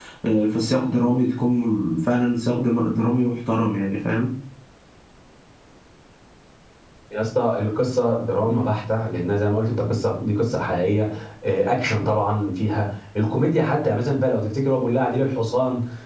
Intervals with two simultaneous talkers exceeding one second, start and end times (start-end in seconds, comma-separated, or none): none